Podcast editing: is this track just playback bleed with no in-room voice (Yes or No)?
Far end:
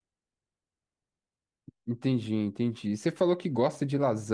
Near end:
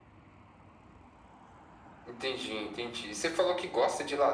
Yes